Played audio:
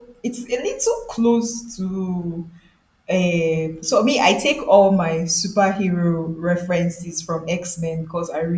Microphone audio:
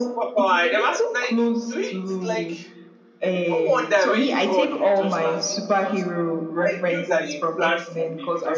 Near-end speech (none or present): present